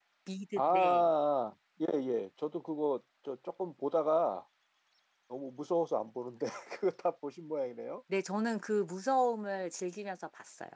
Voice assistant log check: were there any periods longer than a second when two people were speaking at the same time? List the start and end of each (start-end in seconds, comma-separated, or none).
none